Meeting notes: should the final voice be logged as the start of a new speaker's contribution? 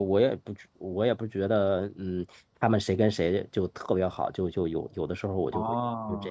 Yes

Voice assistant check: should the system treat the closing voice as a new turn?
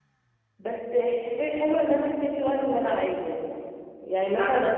No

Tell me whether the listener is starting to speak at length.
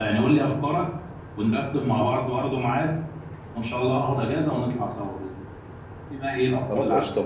Yes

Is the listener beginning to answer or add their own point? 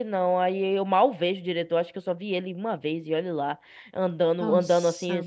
No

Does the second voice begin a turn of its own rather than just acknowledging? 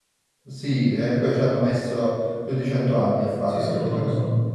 Yes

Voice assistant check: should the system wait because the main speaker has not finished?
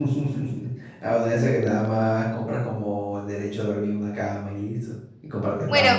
No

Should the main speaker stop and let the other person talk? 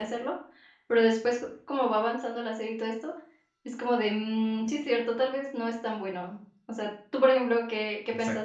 Yes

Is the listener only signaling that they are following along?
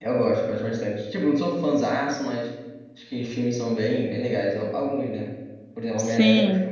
Yes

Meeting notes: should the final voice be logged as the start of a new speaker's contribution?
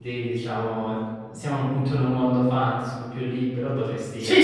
No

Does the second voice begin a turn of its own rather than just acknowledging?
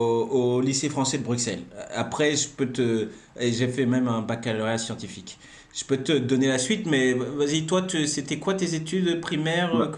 Yes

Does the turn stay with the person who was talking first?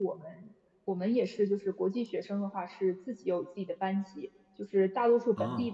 Yes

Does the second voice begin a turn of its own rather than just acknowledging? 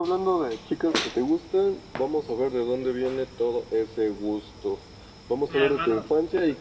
No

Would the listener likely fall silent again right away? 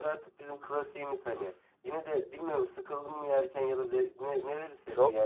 No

